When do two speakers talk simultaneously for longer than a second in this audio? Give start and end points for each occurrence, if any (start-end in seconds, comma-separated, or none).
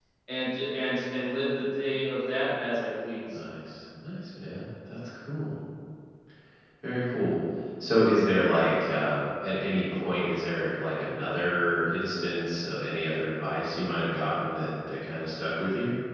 none